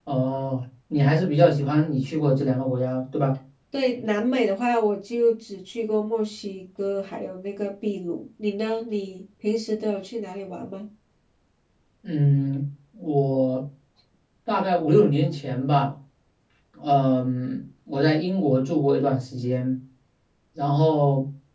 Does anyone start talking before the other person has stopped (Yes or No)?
No